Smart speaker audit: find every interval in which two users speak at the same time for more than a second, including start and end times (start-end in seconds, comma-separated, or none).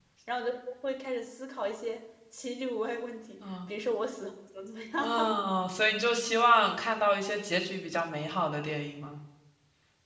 none